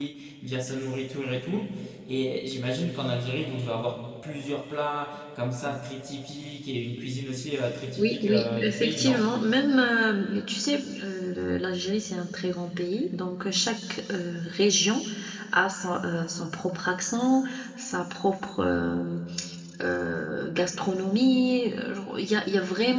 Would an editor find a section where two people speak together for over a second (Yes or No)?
Yes